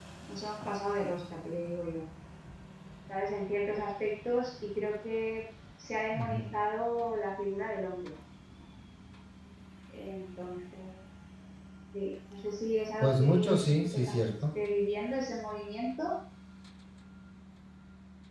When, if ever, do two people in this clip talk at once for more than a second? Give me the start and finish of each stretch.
13.0-14.3

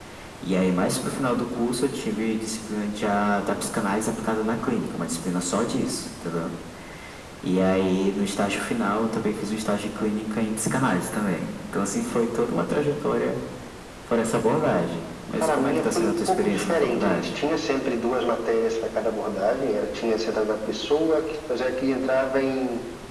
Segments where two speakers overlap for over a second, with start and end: 15.4-17.3

